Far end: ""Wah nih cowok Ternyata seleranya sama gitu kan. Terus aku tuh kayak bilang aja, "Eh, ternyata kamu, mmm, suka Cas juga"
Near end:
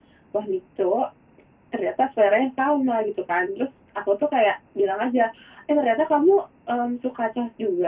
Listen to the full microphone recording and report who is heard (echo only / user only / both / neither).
echo only